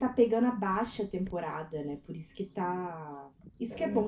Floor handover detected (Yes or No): No